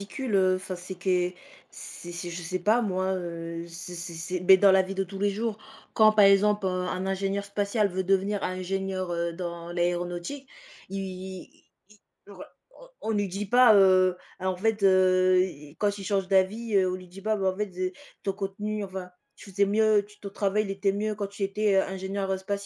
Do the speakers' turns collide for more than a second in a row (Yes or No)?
No